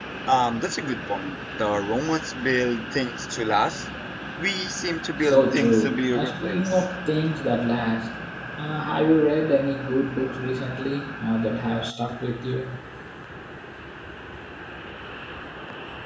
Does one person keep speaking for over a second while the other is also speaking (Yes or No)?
Yes